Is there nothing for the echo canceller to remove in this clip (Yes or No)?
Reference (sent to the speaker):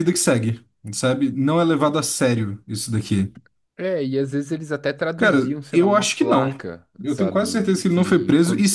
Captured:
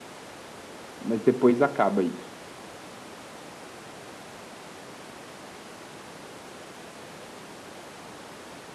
Yes